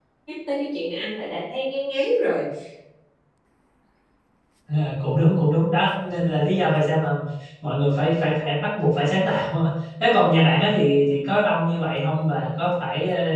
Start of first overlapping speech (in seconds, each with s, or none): none